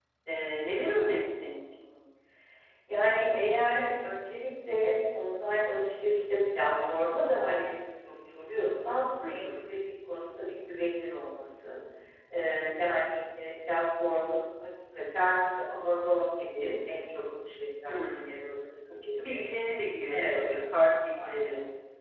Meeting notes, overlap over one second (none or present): none